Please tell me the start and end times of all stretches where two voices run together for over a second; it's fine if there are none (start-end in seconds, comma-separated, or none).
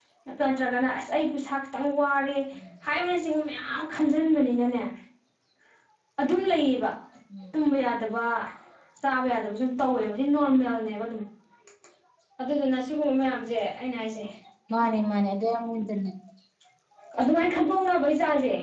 none